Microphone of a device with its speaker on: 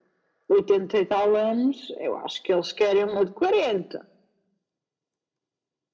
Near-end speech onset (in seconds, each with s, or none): none